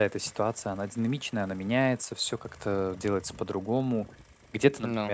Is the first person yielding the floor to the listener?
No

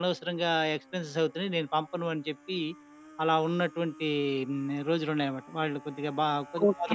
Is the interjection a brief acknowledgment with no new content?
No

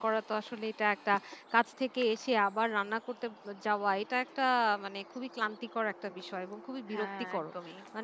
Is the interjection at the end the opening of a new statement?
No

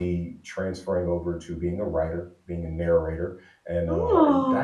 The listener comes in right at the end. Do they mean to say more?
No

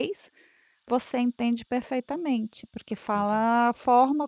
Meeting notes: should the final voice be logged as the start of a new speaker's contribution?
No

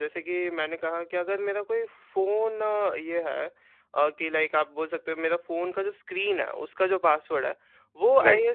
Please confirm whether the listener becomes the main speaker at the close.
No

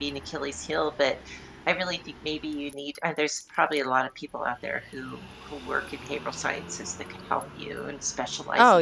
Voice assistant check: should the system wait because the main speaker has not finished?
No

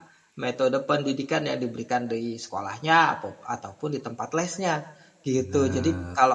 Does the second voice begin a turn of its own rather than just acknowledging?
No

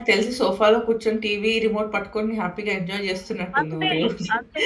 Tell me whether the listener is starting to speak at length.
Yes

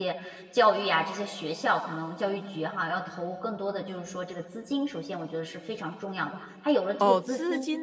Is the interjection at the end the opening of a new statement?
Yes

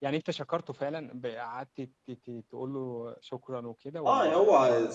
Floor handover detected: Yes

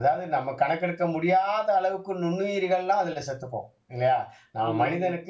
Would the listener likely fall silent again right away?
Yes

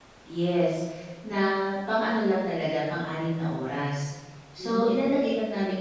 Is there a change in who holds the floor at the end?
No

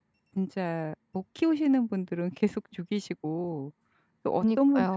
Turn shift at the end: No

